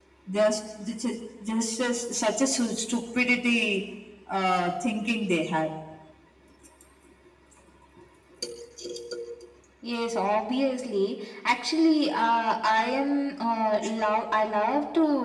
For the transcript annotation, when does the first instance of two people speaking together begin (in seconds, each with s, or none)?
none